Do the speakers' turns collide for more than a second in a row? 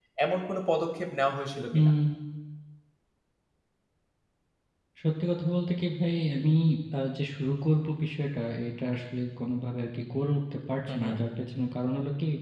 No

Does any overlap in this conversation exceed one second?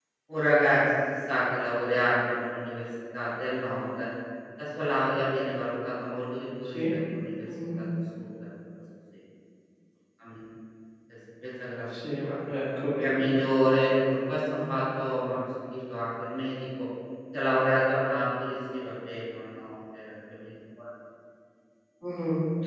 No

